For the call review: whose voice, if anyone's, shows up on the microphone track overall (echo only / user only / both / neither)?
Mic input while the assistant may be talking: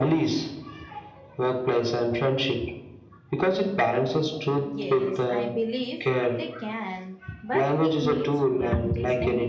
both